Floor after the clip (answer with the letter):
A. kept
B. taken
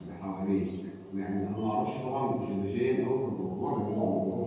A